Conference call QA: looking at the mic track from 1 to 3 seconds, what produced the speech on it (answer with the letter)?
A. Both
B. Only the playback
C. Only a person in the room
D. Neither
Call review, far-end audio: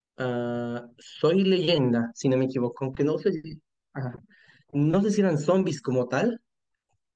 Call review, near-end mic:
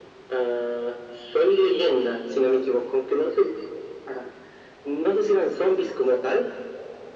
B